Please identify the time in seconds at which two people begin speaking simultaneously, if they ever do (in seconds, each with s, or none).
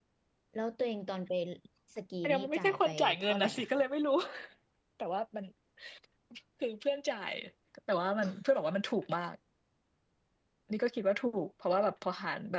2.2 s